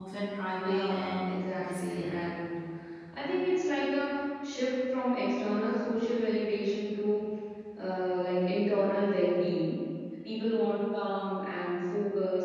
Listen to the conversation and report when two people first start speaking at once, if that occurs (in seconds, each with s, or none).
0.6 s